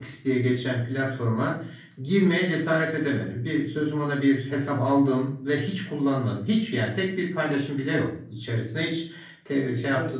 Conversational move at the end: listening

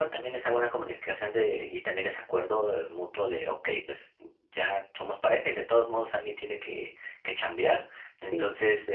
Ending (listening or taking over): listening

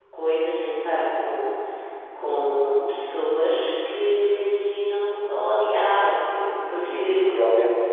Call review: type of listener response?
taking over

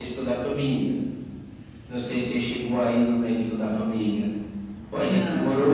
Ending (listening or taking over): listening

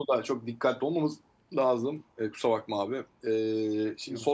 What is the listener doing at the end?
listening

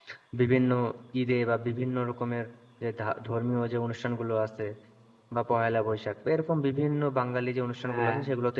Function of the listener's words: listening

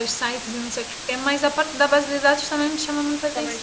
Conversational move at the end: taking over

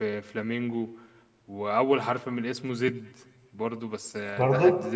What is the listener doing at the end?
listening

